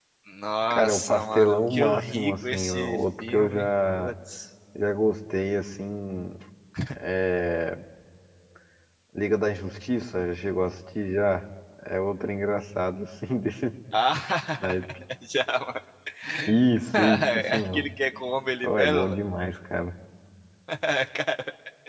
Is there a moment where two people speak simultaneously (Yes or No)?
Yes